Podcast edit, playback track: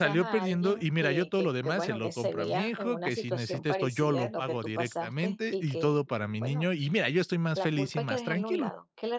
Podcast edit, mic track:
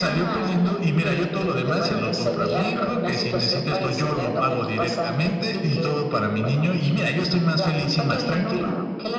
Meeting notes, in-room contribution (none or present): none